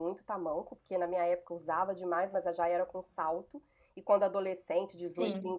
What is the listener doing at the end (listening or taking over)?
listening